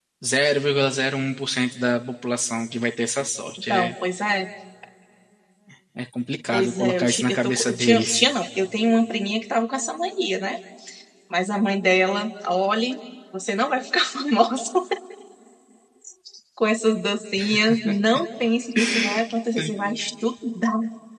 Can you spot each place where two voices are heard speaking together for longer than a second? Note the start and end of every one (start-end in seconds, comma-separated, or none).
6.5-8.2